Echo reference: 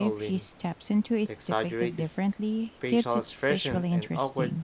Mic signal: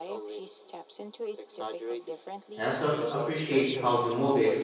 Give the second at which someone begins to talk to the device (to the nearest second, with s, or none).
3 s